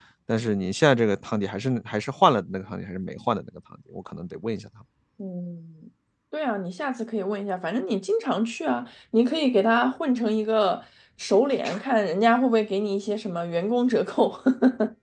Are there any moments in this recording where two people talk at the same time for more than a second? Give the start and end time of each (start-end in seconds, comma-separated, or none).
none